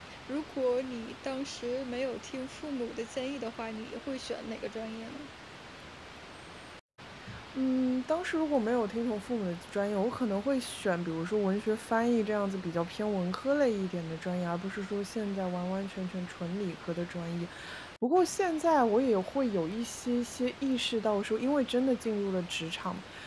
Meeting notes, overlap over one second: none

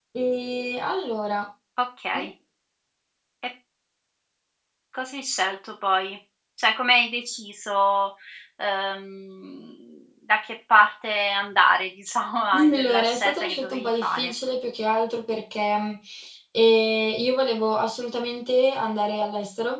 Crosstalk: present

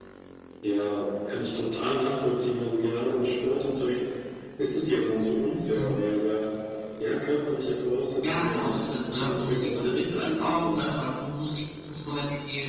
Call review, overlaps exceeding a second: present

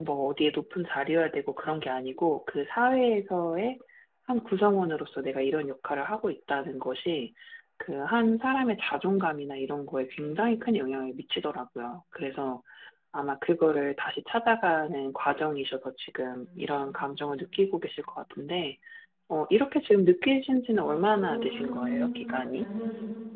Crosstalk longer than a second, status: present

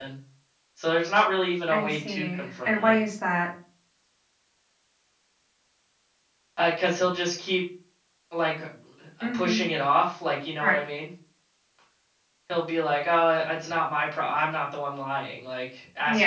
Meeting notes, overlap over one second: present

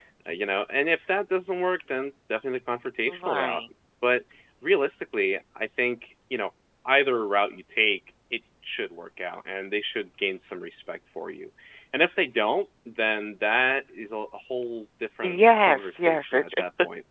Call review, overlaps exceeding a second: present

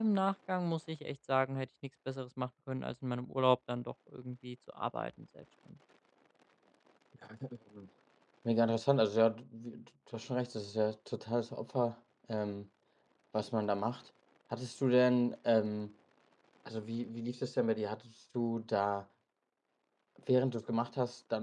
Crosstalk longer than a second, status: none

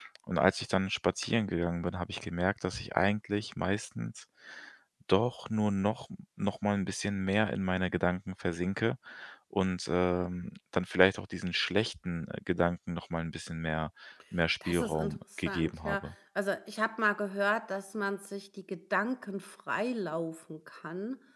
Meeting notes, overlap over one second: present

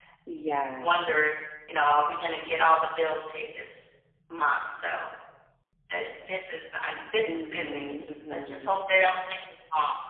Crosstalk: present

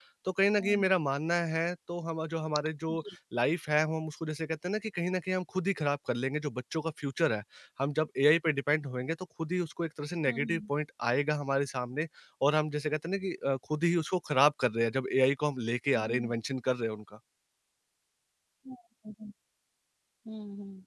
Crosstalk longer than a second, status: none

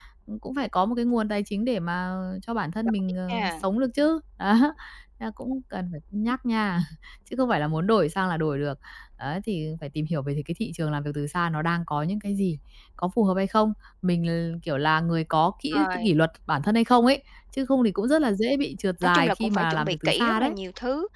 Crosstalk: present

